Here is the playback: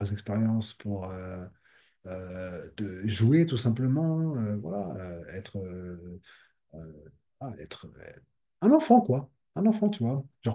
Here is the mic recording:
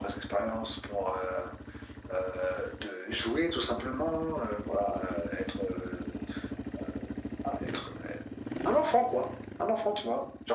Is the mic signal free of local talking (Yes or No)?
Yes